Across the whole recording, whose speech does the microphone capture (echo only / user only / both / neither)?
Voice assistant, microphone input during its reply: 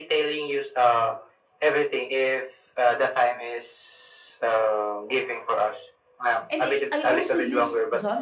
both